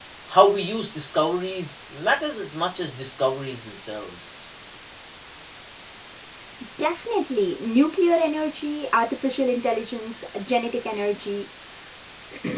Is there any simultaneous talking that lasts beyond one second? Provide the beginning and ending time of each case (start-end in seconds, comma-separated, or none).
none